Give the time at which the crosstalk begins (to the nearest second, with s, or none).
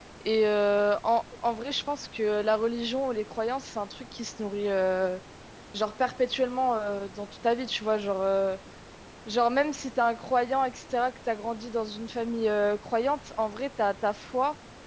none